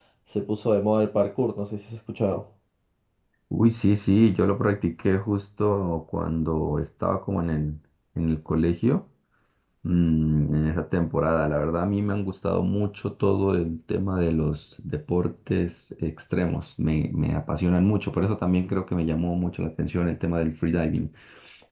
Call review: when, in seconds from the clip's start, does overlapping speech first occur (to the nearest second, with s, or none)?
none